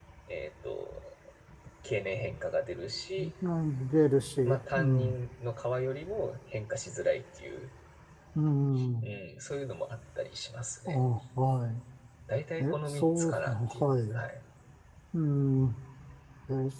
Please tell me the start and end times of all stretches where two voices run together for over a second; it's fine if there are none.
12.6-14.2

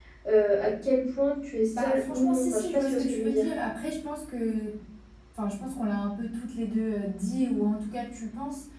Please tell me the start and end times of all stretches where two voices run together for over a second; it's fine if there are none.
1.7-3.5

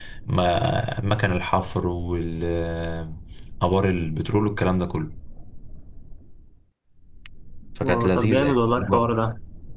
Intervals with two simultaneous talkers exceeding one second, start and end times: 7.8-9.1

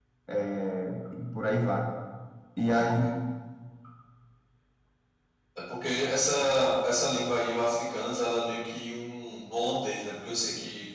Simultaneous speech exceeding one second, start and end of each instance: none

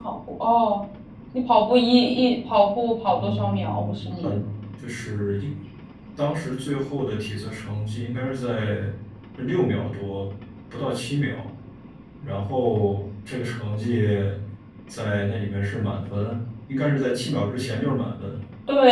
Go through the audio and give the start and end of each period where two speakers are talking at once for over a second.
3.1-4.4

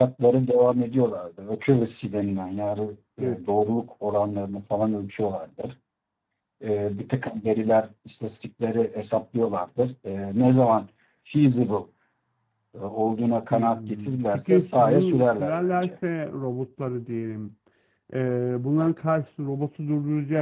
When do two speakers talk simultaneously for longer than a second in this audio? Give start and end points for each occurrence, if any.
13.5-15.9

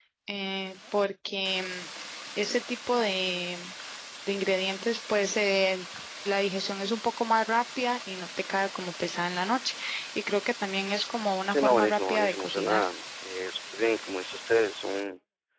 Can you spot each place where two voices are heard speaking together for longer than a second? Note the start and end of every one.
11.5-12.8

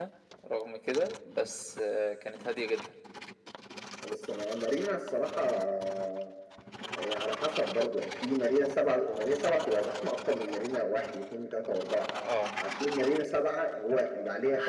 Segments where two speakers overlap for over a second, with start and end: none

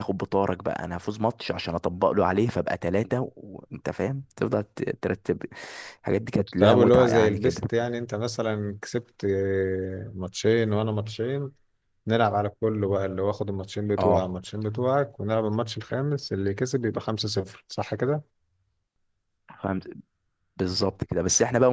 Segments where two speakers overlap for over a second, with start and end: 6.4-7.6

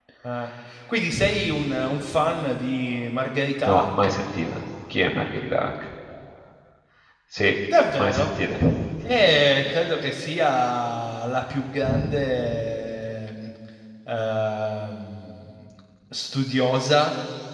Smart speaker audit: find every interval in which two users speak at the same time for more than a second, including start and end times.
none

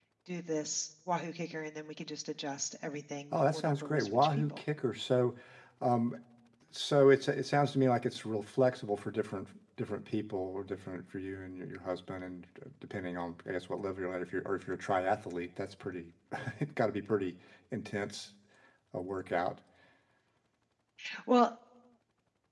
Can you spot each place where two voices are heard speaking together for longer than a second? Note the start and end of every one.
3.3-4.6

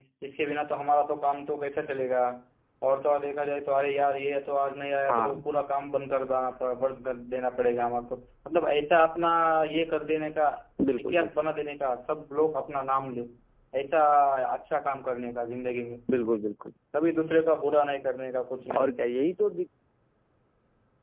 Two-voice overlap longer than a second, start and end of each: none

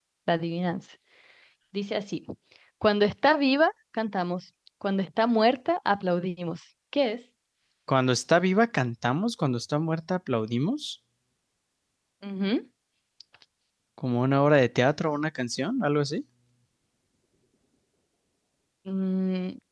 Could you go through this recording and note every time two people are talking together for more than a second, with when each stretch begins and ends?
none

